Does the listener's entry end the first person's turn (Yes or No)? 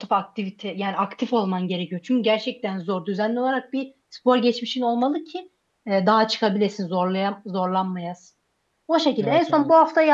No